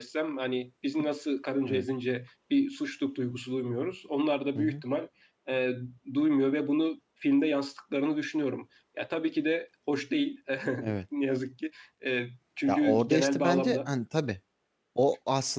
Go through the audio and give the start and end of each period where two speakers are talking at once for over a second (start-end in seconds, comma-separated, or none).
12.7-13.9